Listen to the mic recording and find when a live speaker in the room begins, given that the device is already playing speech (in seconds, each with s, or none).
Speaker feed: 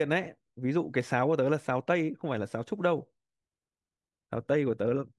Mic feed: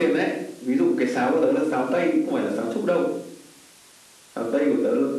none